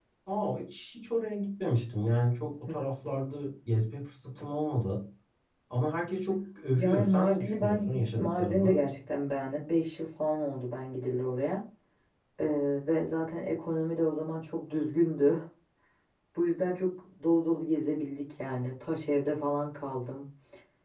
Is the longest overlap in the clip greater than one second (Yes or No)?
Yes